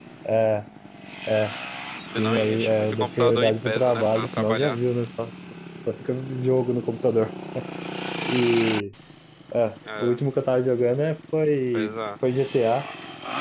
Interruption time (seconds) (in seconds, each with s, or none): 2.2 s